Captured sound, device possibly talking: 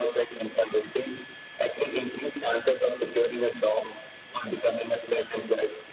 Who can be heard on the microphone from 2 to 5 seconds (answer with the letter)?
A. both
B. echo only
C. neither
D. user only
B